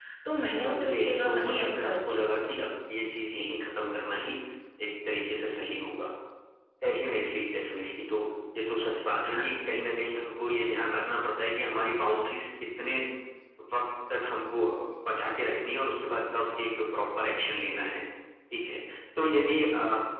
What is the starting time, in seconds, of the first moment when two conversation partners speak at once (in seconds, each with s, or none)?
0.6 s